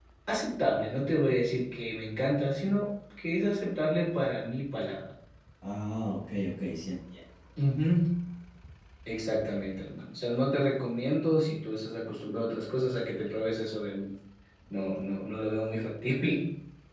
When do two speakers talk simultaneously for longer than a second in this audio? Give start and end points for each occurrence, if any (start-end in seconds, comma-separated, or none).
none